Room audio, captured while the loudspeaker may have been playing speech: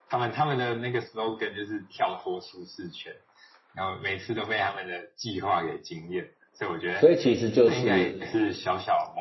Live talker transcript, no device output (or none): 所以其实就是，